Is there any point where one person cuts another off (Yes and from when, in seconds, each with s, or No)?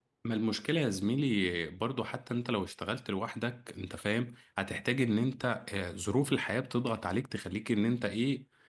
No